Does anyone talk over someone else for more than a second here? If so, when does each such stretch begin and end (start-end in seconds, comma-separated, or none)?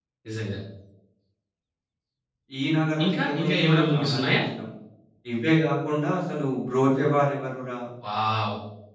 3.0-4.4